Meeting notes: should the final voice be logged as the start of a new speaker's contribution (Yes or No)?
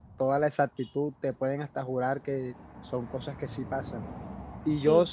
No